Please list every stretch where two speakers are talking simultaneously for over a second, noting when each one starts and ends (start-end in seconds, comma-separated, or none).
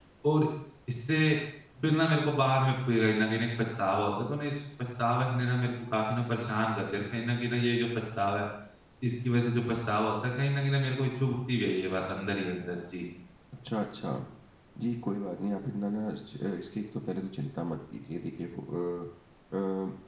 none